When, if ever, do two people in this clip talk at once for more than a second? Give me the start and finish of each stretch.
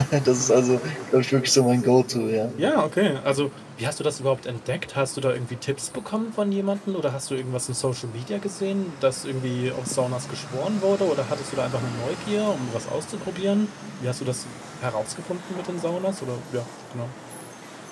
none

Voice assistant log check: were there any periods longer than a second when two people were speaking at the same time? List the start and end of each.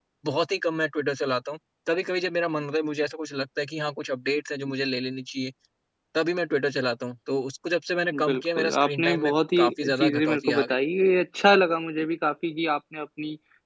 8.1-10.8

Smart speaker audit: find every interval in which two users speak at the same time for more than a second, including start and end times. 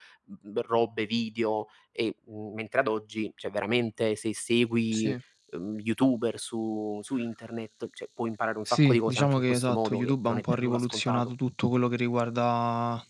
8.7-11.3

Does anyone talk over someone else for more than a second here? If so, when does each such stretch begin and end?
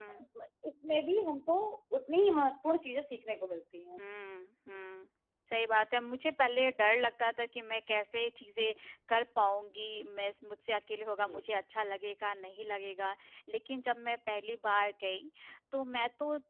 none

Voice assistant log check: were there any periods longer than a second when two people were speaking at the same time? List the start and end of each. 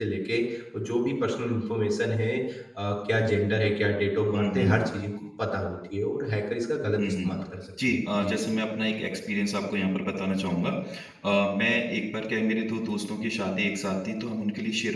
none

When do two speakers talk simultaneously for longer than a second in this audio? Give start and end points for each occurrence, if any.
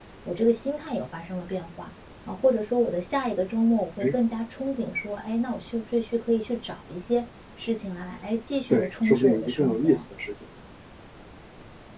8.7-10.0

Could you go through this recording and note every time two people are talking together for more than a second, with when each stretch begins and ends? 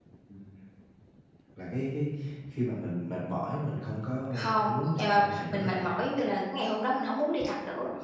4.4-5.9

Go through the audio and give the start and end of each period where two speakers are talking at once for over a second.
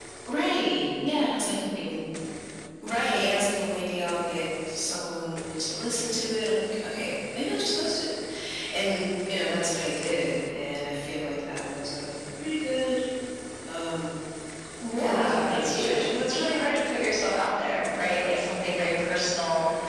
14.9-16.4

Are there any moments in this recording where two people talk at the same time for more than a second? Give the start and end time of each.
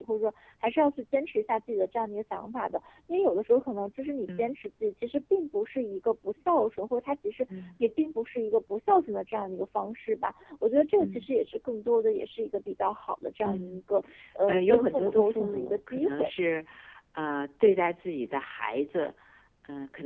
14.5-16.3

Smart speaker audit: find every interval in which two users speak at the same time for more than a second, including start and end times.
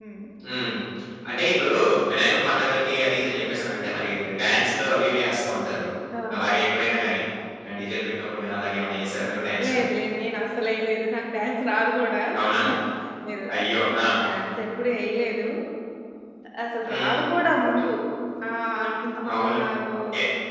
none

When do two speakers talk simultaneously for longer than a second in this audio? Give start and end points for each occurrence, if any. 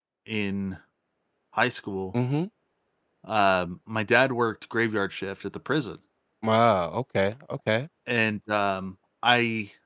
none

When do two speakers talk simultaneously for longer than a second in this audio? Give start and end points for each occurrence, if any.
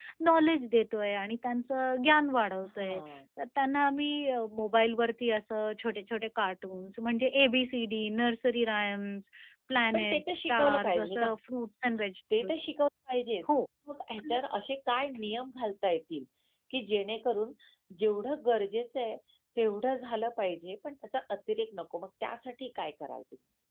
9.9-11.3

